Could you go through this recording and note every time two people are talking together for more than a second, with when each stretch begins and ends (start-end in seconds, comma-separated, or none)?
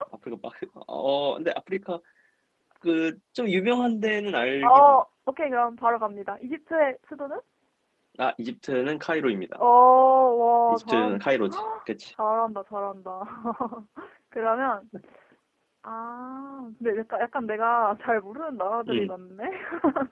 none